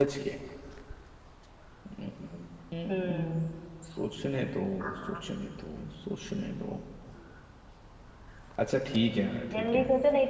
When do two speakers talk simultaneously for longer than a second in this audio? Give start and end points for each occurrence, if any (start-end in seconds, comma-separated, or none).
none